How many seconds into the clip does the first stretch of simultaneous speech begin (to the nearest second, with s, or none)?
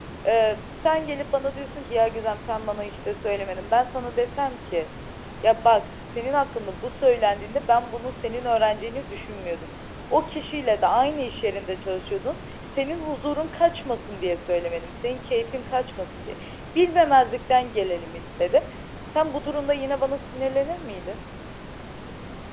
none